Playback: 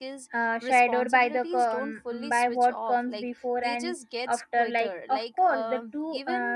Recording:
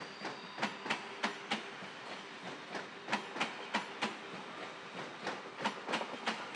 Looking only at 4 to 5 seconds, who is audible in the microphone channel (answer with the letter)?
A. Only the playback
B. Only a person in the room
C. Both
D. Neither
D